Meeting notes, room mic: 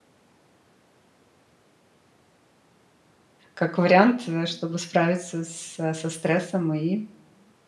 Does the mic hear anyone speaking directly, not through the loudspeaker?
Yes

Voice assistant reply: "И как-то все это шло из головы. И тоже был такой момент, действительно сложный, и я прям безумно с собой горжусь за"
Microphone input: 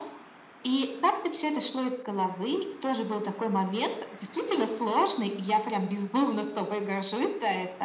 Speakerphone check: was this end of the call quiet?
Yes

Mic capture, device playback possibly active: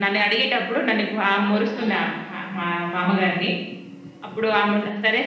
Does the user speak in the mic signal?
Yes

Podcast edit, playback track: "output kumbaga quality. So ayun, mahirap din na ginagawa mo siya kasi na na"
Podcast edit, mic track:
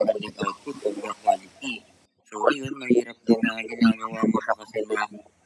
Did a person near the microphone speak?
No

